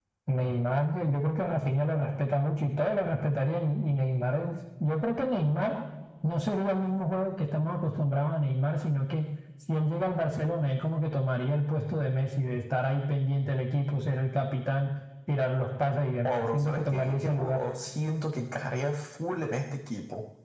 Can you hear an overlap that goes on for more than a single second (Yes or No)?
Yes